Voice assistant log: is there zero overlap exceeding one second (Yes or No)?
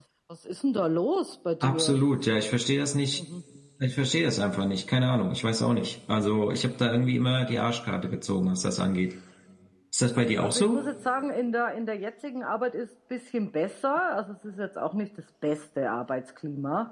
Yes